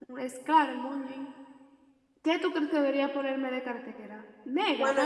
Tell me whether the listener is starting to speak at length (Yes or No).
Yes